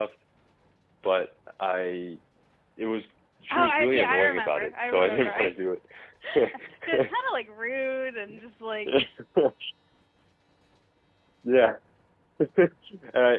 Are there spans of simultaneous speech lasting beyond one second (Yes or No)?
Yes